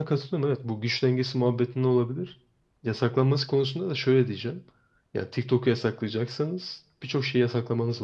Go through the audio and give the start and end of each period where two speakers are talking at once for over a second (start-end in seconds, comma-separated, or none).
none